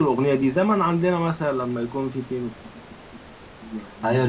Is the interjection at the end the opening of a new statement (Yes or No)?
Yes